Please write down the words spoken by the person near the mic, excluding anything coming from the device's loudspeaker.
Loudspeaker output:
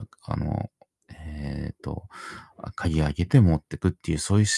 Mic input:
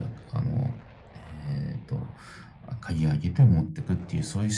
none

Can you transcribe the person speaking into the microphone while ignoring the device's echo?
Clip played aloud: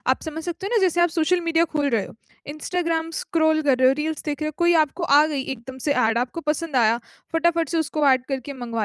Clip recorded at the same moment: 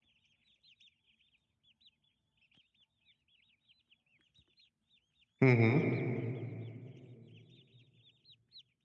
हुँ, हुँ।

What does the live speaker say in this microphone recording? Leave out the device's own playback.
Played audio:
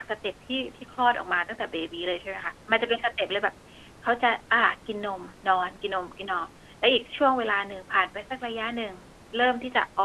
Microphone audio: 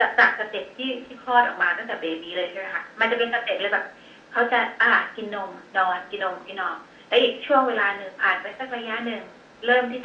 none

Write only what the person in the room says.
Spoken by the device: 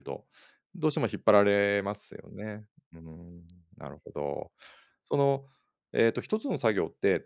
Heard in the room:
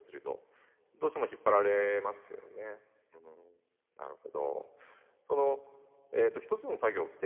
none

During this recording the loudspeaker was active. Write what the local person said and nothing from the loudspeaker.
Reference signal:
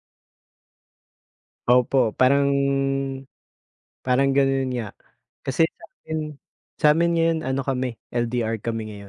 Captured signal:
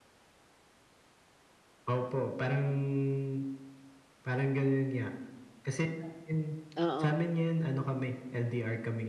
Oo.

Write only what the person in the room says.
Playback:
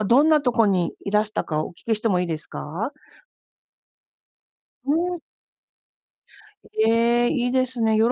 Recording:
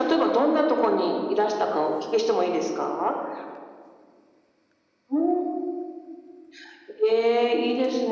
none

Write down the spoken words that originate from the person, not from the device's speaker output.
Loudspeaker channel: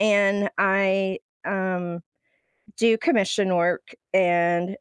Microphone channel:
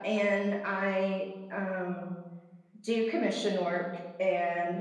none

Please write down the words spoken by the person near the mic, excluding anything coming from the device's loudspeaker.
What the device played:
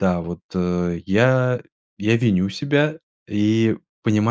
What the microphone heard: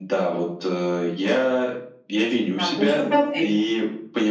Так, ну еще в процессе.

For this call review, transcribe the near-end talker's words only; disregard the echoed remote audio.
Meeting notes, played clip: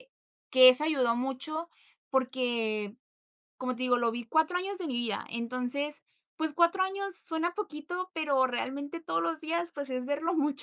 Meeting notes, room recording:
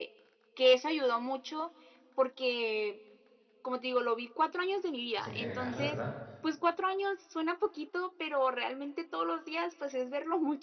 pues, en general, la verdad.

